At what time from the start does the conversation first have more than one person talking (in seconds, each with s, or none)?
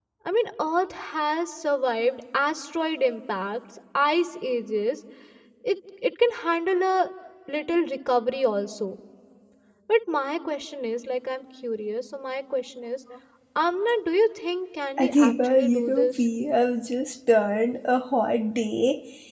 15.0 s